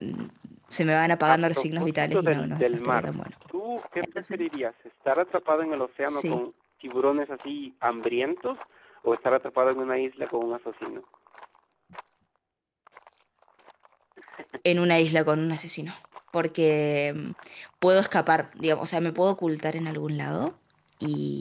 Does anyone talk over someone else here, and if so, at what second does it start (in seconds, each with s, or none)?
1.3 s